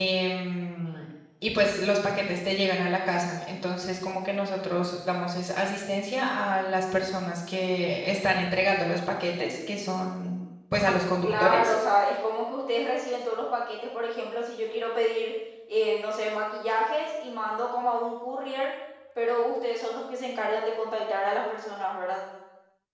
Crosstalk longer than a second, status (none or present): none